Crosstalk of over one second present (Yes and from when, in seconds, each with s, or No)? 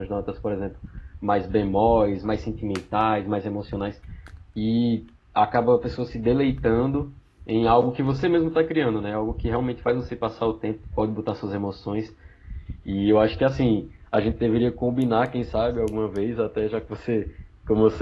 No